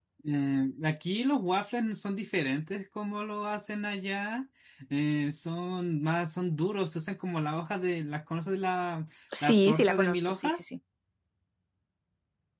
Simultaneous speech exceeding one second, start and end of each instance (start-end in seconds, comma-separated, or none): 9.4-10.7